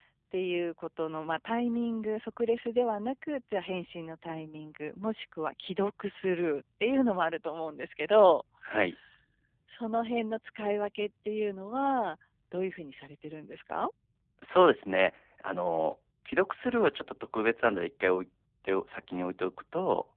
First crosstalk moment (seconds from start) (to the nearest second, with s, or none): none